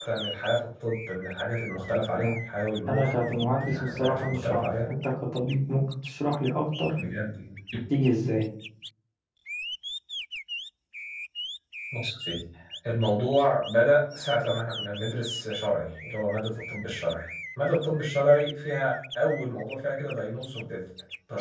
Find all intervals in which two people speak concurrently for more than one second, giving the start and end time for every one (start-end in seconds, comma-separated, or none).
2.9-4.9